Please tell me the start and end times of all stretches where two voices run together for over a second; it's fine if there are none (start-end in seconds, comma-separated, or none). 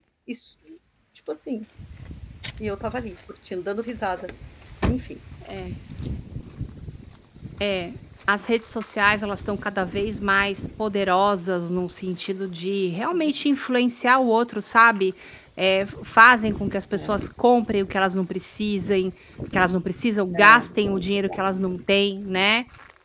none